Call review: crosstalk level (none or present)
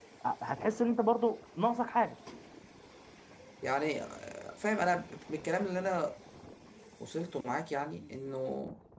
none